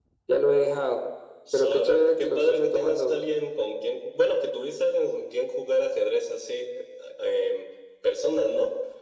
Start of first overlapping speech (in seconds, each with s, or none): 1.5 s